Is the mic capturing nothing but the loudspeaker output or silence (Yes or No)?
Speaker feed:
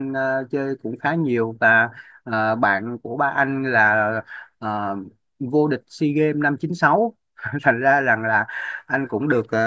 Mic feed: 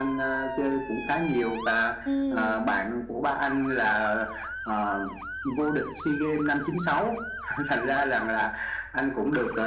No